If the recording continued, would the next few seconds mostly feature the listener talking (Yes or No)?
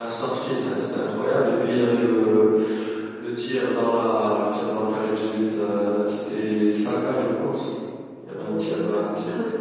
Yes